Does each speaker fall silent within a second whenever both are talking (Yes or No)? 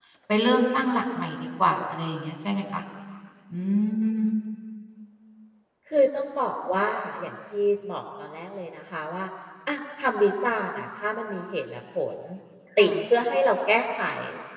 Yes